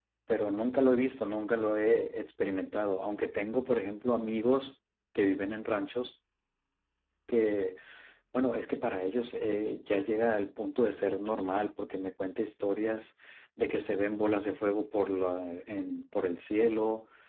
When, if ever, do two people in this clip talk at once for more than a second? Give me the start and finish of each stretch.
none

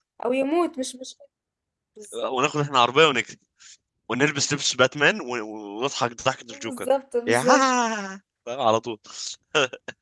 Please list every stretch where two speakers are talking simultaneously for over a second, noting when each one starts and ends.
none

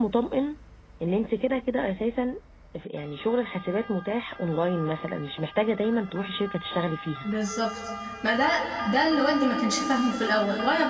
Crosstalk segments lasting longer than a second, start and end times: none

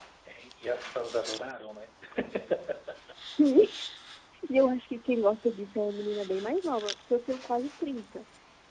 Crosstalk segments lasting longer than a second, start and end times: none

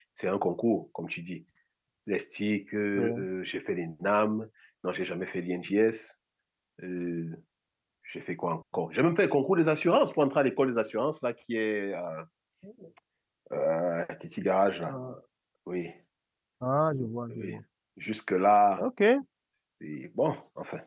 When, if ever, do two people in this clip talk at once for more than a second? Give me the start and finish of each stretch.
none

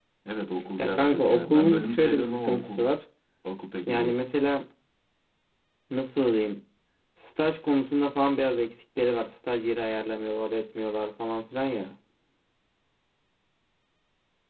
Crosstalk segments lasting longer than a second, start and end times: 0.8-2.9

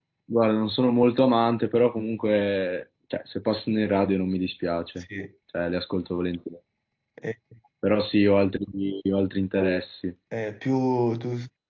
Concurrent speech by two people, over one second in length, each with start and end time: none

